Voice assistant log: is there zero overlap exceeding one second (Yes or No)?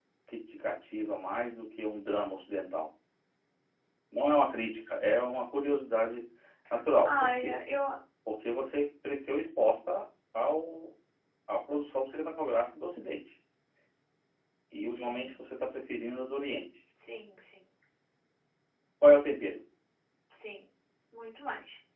Yes